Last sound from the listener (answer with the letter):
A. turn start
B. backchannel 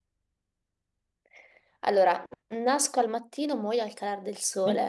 A